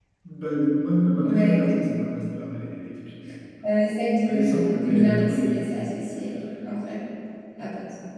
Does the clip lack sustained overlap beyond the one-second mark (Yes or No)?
No